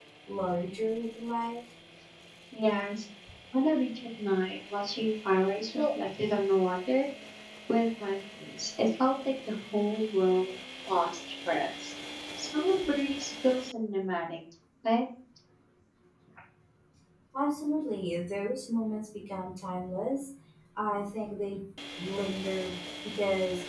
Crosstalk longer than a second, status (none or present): none